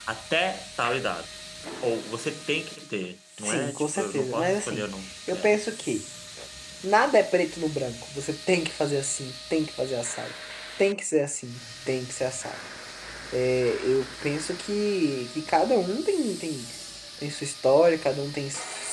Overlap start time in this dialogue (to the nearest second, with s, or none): 3 s